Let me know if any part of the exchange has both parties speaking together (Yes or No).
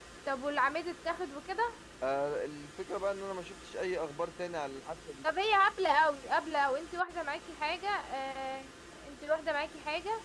No